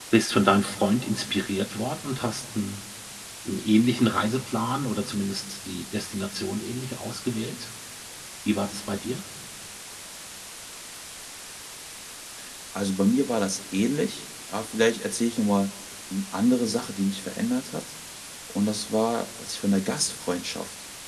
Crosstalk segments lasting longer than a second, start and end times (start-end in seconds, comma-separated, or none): none